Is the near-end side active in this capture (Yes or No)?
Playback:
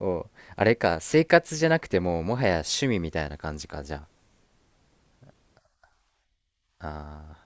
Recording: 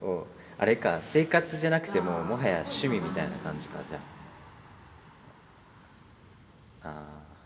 Yes